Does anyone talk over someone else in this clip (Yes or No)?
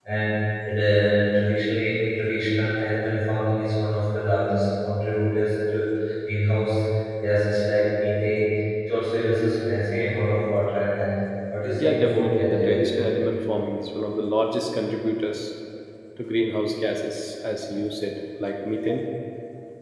Yes